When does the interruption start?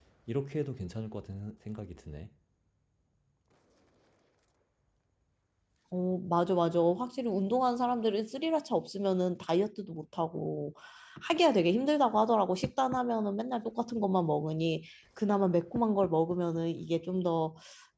none

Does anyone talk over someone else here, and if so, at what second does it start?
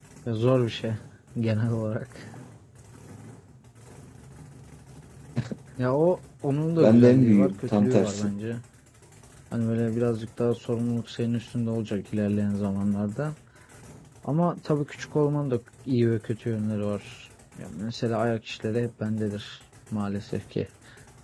6.8 s

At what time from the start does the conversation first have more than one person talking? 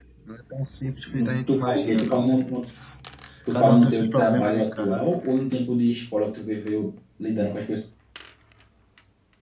1.1 s

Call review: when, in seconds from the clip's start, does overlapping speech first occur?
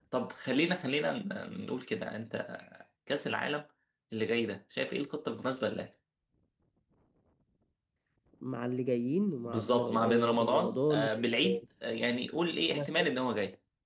9.4 s

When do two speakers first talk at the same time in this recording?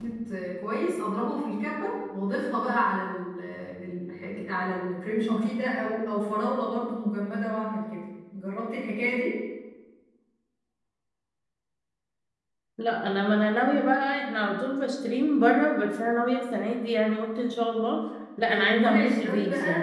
18.5 s

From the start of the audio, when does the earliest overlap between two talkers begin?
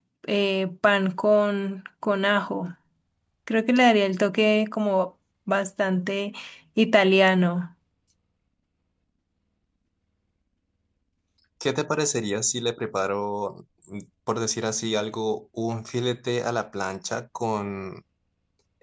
none

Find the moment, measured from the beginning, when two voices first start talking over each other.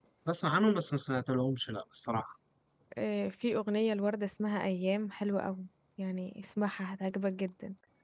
none

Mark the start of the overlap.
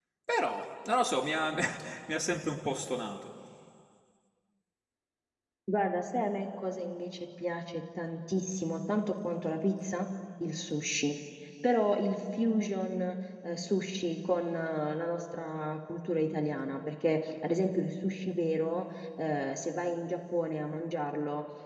none

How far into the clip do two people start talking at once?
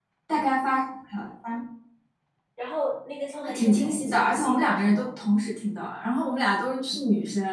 3.4 s

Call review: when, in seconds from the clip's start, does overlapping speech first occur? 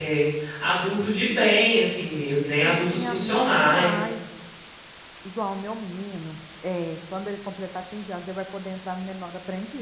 2.6 s

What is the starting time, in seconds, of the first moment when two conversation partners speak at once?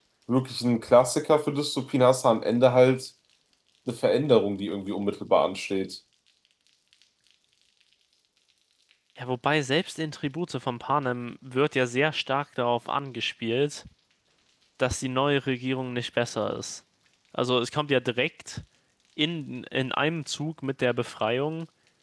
none

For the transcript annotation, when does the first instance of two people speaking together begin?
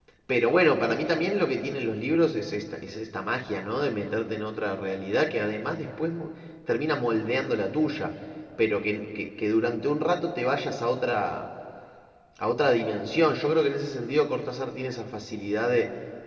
none

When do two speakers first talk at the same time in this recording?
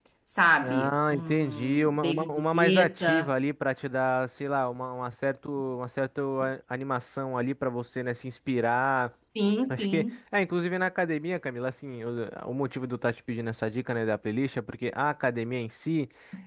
0.6 s

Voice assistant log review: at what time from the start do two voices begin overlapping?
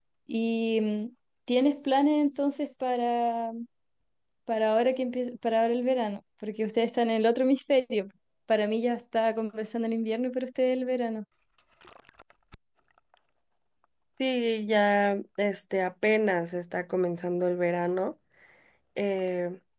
none

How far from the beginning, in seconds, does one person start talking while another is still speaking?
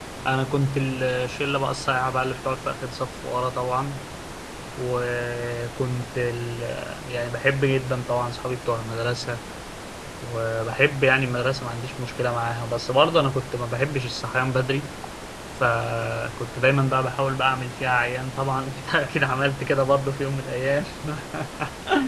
none

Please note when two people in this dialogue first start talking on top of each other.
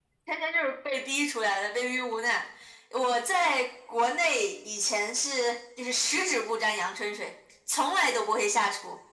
none

